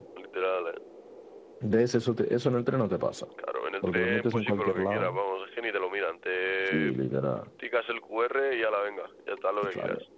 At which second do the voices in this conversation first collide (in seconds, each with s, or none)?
3.8 s